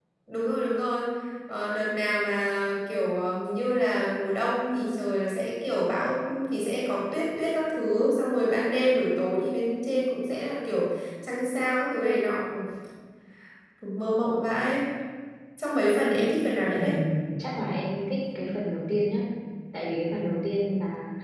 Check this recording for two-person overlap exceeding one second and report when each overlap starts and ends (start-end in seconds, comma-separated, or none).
none